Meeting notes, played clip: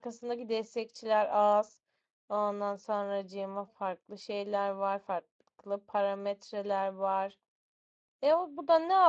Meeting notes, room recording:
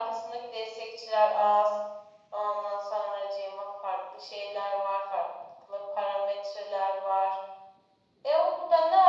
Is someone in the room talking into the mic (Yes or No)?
No